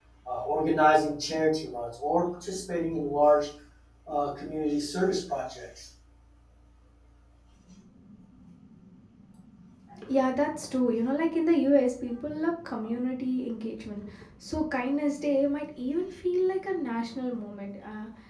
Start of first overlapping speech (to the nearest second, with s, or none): none